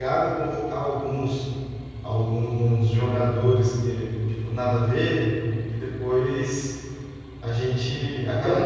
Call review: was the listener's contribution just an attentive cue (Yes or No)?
No